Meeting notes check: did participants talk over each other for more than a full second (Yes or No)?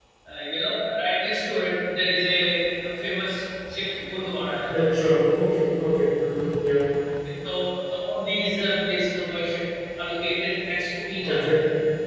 No